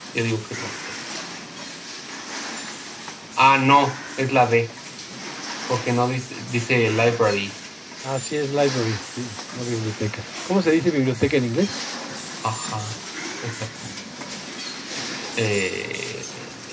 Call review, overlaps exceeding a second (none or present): none